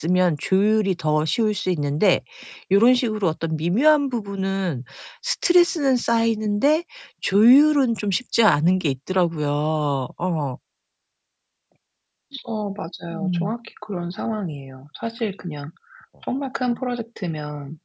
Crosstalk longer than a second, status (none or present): none